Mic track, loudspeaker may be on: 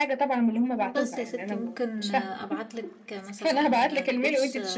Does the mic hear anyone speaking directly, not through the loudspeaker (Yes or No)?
Yes